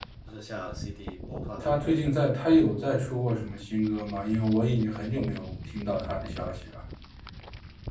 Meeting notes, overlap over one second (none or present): none